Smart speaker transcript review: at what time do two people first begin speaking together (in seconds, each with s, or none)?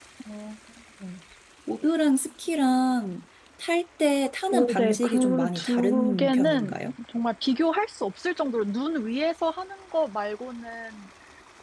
4.5 s